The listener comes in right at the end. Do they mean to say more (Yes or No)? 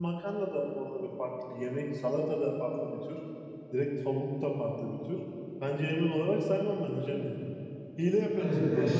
Yes